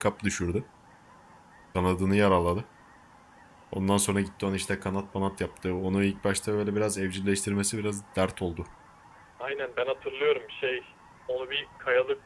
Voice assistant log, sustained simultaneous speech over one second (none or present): none